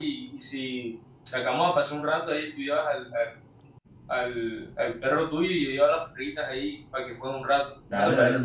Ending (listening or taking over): taking over